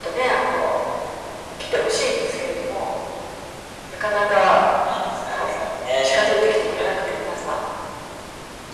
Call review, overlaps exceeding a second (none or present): none